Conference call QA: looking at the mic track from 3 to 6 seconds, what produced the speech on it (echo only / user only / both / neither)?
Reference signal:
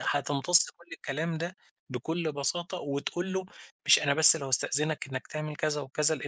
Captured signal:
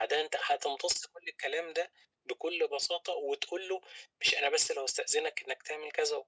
echo only